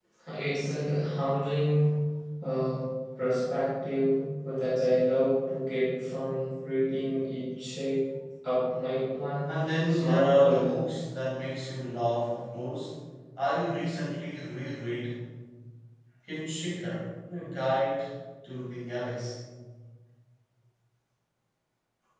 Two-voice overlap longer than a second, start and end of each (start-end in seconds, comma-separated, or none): 9.5-10.7